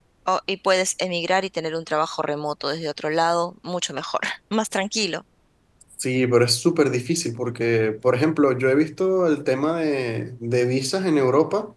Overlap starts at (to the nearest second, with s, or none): none